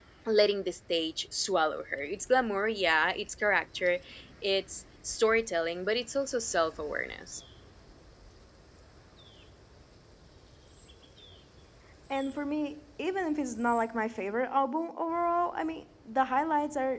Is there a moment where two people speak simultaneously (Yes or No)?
No